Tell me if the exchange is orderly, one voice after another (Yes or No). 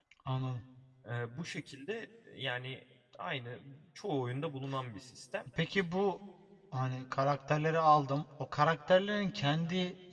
Yes